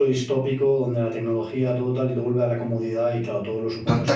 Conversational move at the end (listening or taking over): taking over